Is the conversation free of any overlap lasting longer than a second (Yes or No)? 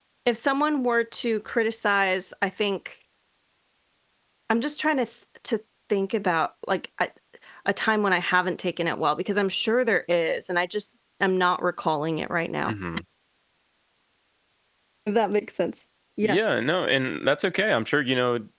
Yes